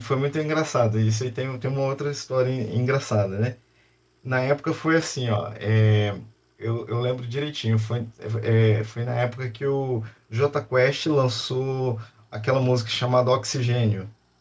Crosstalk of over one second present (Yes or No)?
No